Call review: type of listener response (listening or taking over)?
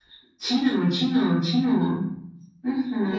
taking over